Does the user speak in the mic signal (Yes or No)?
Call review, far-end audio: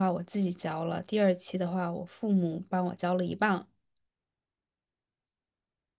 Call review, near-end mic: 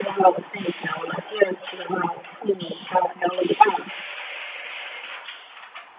No